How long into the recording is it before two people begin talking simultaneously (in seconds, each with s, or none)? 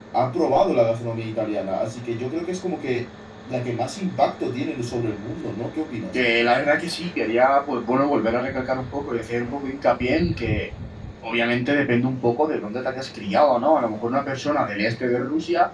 none